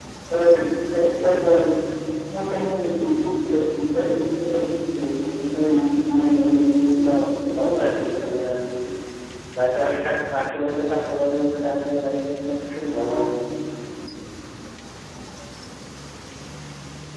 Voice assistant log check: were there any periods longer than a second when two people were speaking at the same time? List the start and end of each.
6.0-7.8

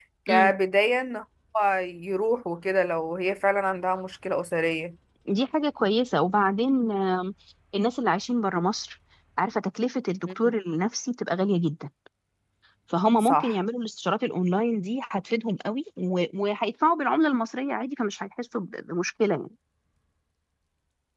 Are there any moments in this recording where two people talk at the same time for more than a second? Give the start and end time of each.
none

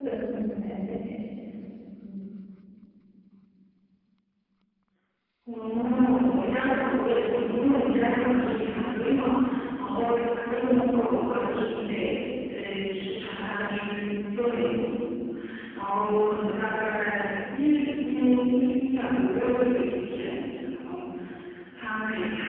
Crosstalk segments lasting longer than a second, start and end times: none

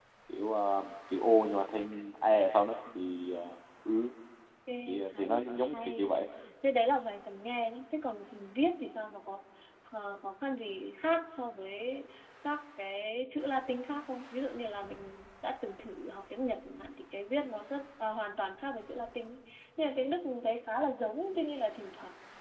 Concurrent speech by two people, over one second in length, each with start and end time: 4.9-6.1

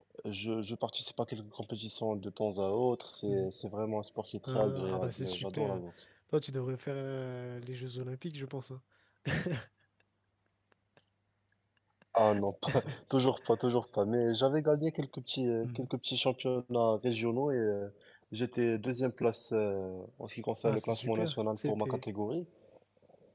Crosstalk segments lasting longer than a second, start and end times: 4.5-5.8, 20.6-22.0

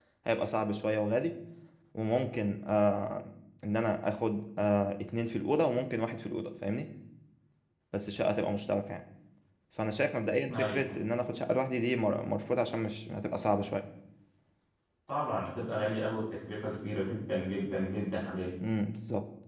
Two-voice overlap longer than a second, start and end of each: none

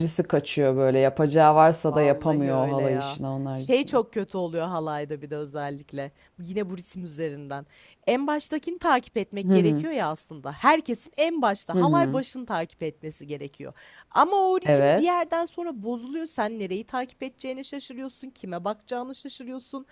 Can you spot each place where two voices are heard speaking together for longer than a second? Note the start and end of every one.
1.9-3.2

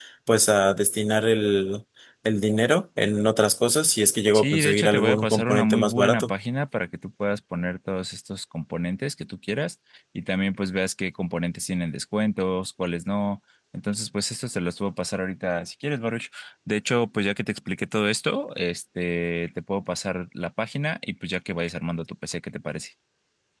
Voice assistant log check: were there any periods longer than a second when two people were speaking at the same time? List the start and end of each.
4.3-6.3

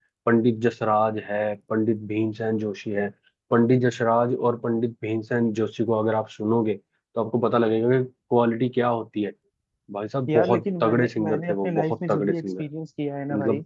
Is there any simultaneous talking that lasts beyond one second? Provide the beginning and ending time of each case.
10.3-12.6

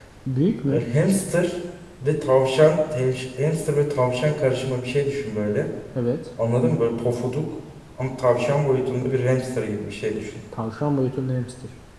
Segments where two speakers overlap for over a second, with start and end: none

